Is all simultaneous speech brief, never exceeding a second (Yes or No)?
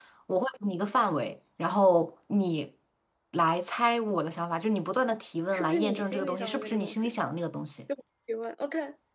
No